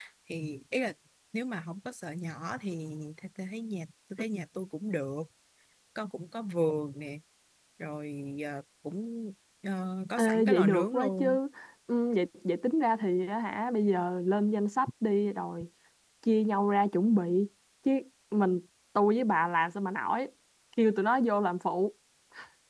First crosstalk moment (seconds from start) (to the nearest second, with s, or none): 10 s